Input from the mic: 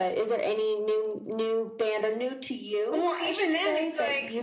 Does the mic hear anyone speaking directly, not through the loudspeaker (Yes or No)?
No